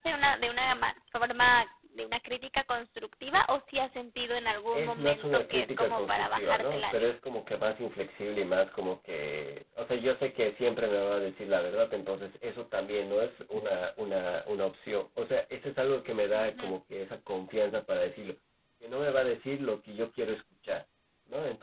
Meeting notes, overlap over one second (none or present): present